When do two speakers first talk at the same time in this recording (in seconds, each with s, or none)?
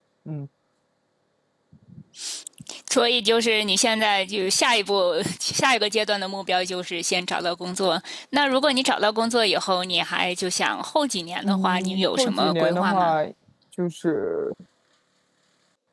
11.4 s